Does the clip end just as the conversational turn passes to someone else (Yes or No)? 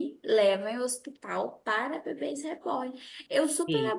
No